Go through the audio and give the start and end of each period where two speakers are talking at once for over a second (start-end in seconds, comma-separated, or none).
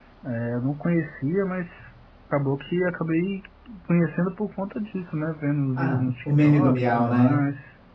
5.8-7.4